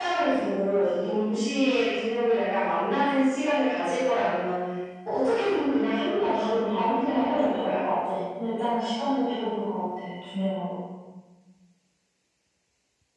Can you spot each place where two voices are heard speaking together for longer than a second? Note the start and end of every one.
6.2-7.8

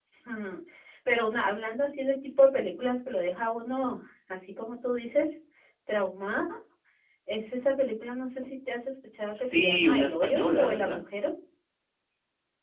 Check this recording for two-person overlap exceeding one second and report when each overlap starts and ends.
9.3-11.0

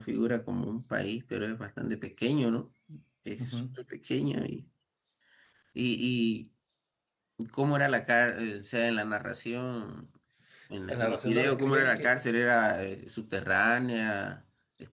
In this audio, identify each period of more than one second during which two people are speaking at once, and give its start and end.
10.9-12.1

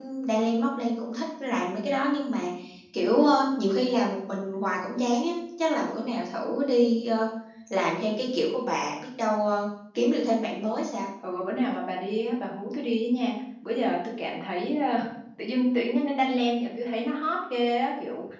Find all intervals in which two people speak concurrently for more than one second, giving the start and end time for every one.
none

